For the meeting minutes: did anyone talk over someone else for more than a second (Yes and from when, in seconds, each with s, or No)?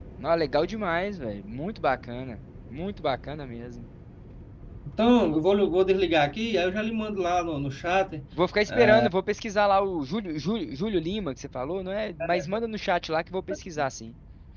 No